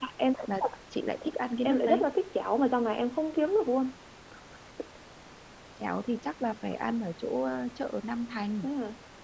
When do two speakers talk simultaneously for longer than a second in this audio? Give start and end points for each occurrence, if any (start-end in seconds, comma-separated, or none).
none